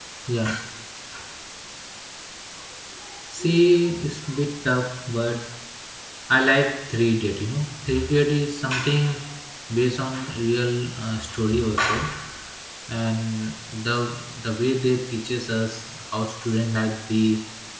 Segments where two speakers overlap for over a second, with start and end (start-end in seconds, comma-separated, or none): none